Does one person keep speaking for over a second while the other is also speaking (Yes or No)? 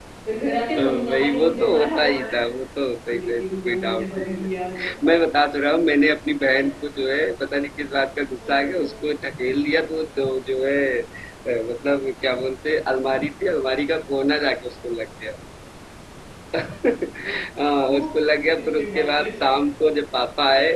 Yes